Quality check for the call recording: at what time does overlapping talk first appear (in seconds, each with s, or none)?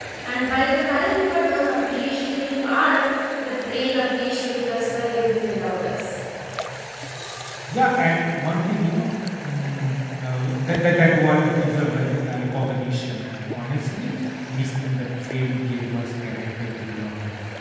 none